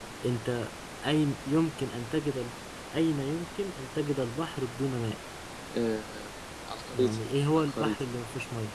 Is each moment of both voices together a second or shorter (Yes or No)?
Yes